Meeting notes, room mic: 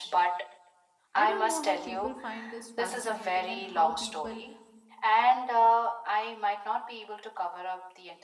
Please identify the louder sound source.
echo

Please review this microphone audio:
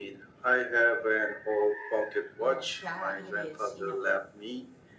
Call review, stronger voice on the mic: echo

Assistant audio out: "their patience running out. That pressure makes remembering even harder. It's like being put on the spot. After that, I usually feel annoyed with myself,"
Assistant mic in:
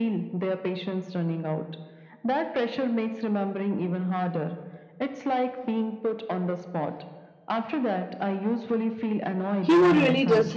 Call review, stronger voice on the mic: user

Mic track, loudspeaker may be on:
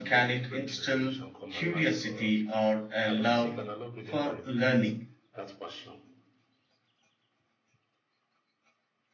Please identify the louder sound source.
user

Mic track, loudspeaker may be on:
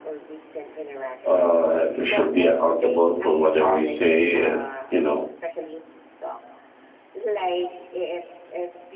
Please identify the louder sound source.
user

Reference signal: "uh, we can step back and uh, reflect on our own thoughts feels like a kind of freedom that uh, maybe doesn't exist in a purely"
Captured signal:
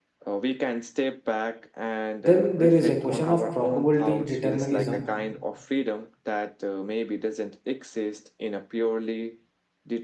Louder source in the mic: user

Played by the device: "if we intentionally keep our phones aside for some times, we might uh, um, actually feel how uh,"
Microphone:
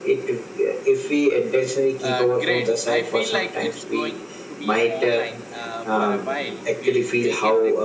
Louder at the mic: echo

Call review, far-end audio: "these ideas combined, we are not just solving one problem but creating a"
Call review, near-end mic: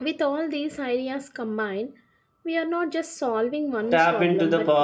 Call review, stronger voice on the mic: user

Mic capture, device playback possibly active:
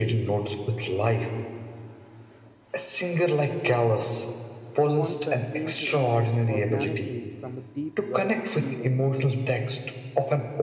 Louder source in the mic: echo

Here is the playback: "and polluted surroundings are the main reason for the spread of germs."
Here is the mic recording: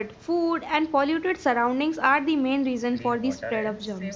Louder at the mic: echo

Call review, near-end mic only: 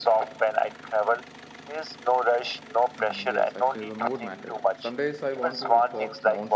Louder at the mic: echo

